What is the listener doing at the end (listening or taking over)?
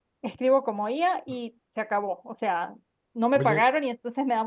listening